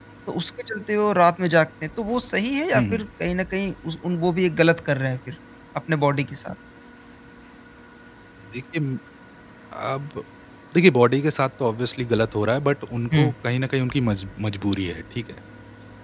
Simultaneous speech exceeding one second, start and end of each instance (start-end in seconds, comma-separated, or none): none